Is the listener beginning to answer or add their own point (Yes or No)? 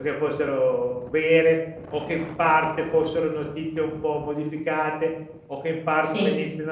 No